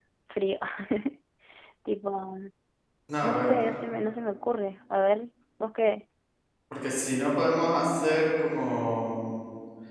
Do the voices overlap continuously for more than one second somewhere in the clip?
No

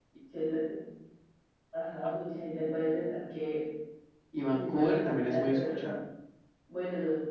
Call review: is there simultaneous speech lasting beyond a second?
Yes, from 4.5 s

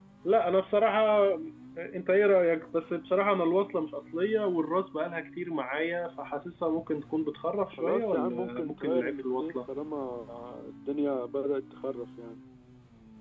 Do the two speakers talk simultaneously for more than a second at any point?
Yes, from 7.7 s

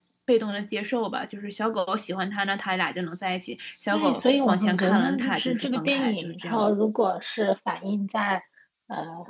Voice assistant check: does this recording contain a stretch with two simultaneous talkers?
Yes, from 3.9 s

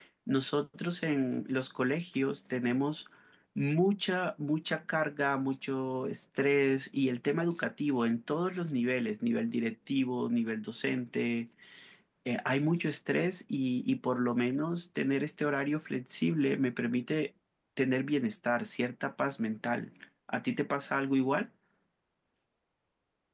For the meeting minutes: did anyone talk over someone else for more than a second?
No

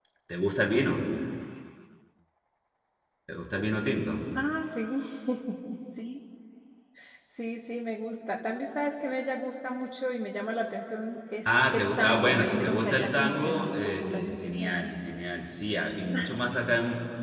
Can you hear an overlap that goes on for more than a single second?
Yes, from 11.4 s

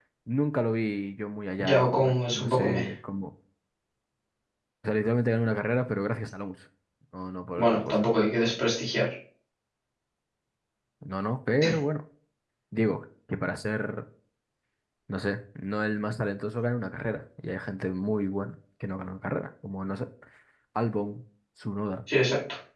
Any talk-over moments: Yes, from 1.6 s

